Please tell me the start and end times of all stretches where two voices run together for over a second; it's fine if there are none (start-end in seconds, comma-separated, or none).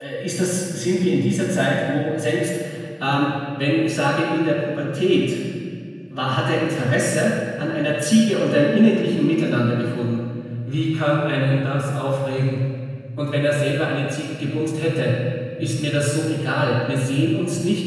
none